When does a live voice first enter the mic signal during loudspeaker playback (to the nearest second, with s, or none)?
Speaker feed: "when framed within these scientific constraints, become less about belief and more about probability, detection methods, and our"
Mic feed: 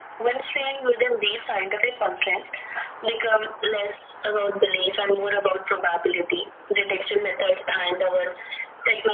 none